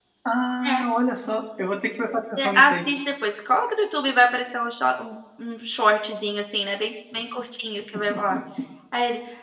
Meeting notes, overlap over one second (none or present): none